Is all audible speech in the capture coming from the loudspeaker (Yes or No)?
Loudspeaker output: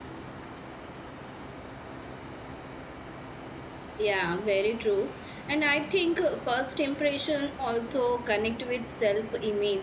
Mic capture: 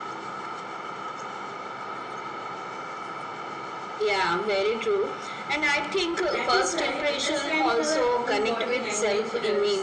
No